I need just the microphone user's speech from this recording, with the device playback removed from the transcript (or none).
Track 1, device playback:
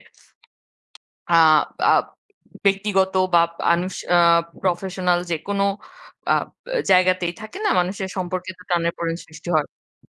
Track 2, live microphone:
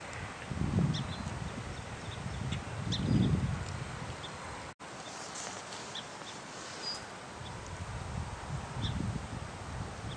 none